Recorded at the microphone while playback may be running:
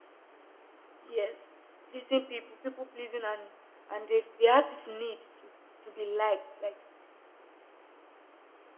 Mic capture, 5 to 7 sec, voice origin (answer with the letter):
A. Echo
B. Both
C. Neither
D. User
D